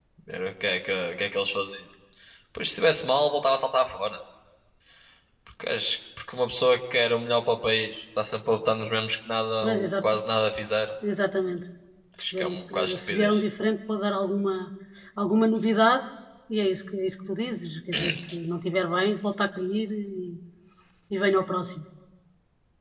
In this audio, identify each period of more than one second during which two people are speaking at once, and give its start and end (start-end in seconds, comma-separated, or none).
12.2-13.4